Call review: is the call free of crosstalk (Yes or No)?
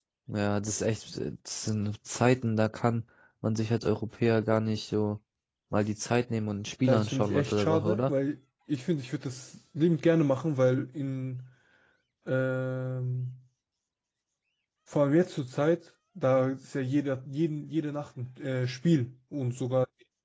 No